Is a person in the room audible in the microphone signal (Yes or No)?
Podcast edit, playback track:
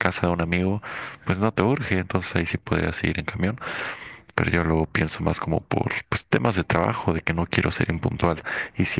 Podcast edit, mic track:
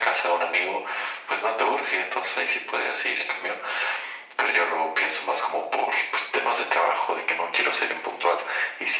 No